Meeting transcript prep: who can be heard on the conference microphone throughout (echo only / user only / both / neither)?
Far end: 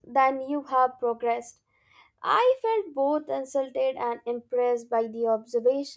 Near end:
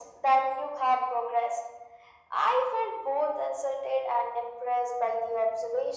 echo only